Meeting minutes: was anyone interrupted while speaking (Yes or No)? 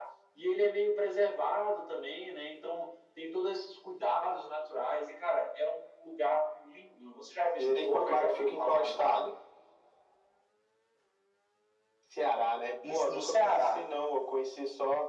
Yes